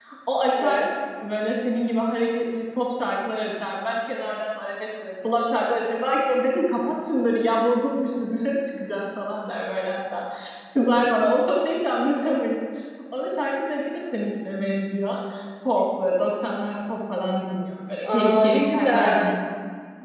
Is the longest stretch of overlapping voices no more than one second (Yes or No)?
No